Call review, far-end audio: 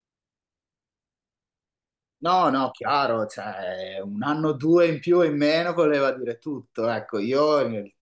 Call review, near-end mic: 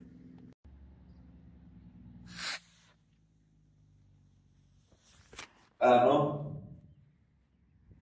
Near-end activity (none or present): present